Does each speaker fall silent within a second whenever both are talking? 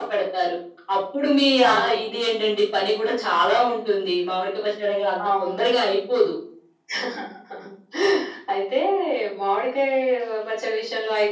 Yes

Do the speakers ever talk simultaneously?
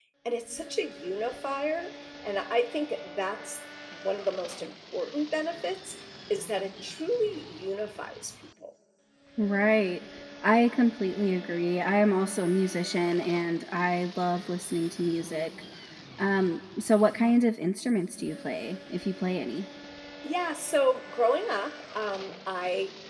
No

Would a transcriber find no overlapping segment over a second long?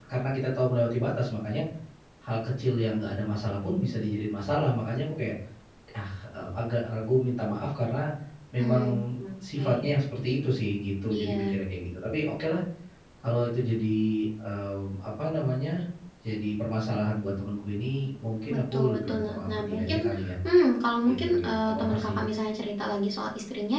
No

